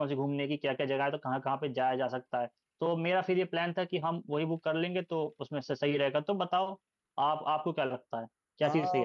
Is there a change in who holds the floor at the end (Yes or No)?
Yes